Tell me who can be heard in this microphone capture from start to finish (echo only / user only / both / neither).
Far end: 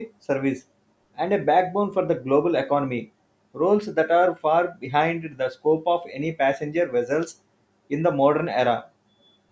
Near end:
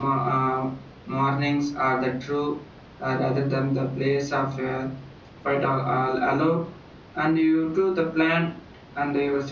user only